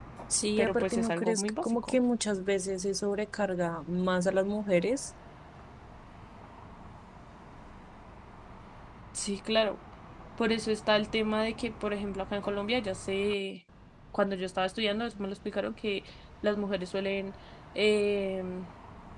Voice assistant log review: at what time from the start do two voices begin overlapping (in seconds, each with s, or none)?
0.6 s